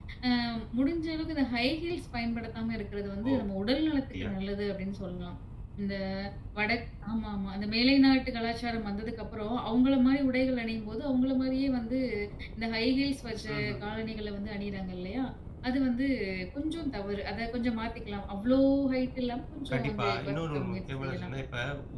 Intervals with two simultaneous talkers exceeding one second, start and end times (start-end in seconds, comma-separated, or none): 19.7-21.3